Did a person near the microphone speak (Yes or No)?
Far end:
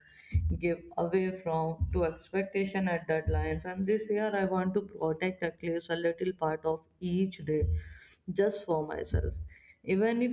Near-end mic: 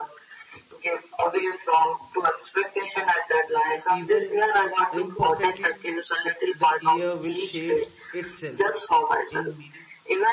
Yes